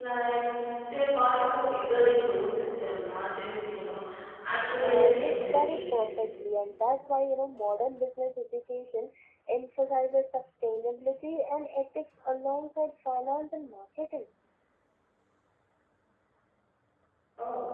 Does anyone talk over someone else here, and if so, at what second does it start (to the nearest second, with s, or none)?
5 s